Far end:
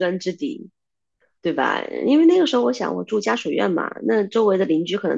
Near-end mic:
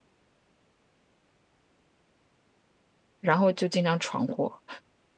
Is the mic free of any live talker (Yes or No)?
No